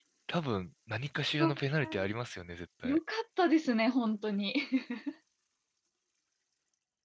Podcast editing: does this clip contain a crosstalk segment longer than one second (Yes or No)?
No